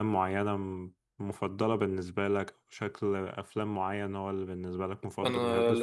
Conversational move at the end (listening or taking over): taking over